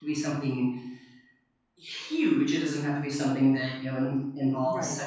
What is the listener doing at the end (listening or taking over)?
listening